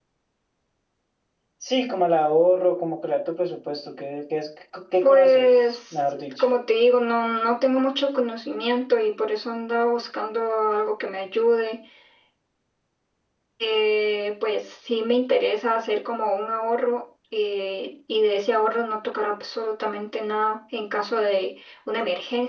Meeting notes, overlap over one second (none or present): present